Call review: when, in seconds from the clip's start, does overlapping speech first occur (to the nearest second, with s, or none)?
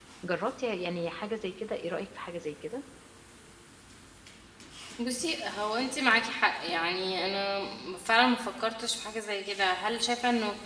none